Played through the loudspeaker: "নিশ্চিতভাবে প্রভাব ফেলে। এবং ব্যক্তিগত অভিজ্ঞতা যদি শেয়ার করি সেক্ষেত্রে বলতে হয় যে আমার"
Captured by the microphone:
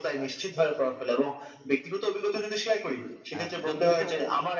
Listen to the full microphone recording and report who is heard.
both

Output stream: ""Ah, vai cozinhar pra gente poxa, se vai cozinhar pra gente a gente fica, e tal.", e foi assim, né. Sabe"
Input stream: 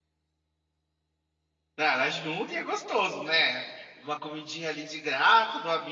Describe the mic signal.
user only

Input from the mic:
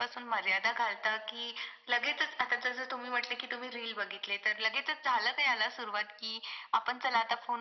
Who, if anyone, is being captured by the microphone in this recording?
echo only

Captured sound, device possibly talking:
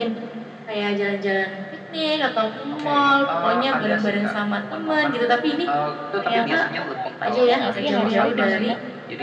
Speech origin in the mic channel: both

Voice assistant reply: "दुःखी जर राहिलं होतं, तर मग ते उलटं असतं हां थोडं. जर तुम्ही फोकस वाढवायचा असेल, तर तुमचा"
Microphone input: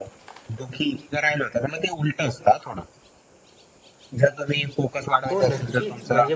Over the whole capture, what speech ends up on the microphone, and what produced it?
both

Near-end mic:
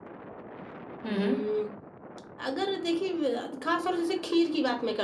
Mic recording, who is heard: both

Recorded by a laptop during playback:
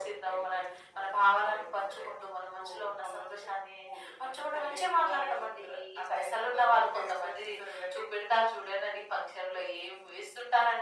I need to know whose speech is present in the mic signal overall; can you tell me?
echo only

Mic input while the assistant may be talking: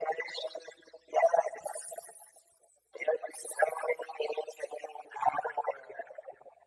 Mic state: echo only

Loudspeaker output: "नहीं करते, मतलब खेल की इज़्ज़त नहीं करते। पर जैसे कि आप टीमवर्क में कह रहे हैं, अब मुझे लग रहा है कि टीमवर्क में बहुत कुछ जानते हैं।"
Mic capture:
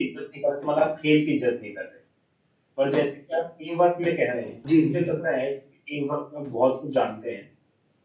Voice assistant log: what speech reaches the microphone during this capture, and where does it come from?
both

